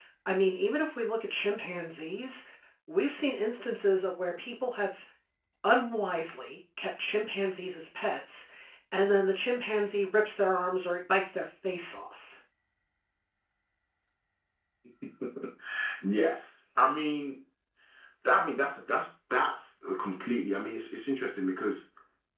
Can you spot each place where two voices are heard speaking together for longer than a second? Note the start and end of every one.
none

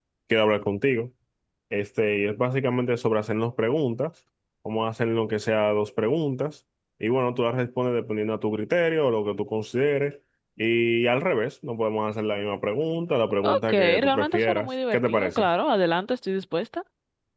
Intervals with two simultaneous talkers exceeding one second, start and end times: 13.4-15.5

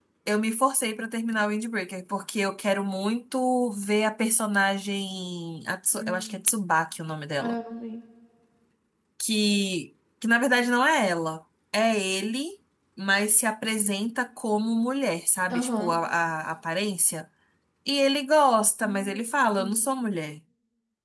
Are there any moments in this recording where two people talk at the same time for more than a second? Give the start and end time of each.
none

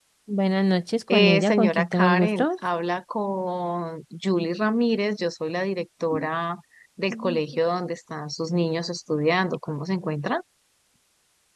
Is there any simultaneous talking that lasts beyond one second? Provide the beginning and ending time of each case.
1.1-2.5

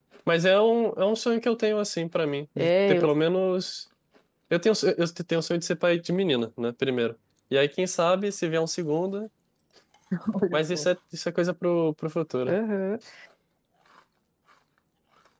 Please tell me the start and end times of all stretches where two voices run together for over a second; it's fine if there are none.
none

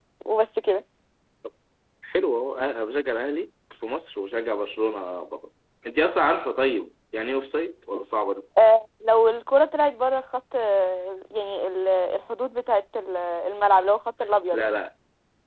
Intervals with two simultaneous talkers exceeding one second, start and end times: none

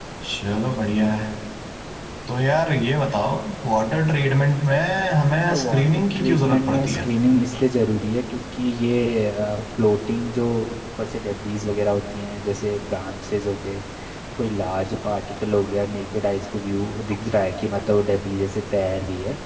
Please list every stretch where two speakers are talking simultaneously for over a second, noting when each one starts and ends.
5.5-7.1

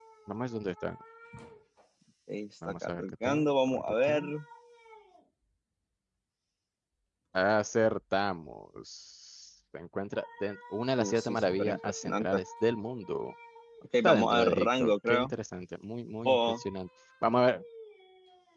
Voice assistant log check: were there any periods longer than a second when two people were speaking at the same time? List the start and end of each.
2.6-4.2, 11.0-12.4, 14.0-15.3

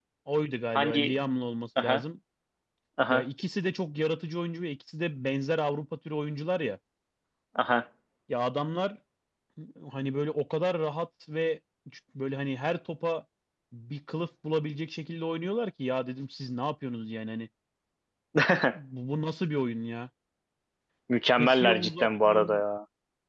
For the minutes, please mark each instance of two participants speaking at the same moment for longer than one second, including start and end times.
21.4-22.6

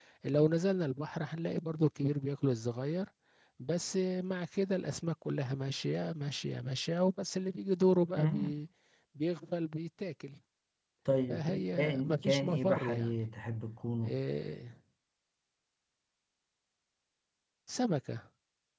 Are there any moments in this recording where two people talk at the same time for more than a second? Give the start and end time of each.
11.3-13.2

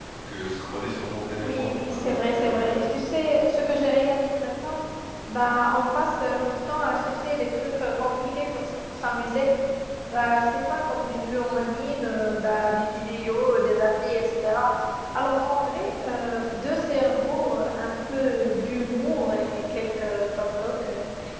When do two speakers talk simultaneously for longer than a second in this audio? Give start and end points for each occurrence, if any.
1.4-2.8

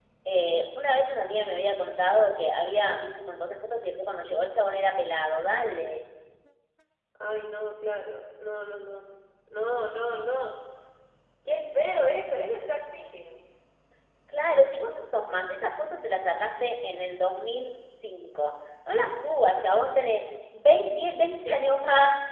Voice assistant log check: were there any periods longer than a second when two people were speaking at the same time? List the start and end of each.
none

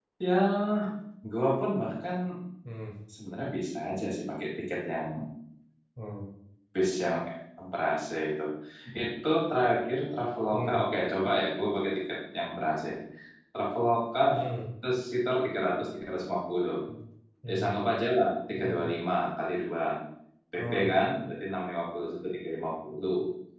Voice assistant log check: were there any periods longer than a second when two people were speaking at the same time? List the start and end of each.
none

